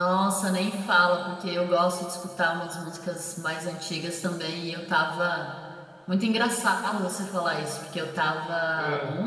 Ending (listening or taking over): listening